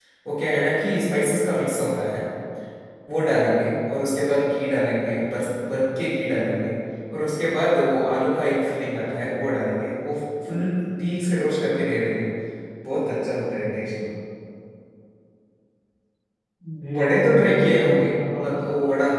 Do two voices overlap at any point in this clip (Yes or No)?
Yes